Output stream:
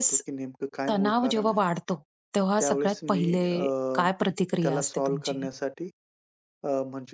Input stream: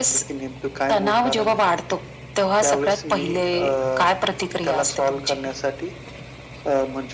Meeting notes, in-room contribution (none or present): none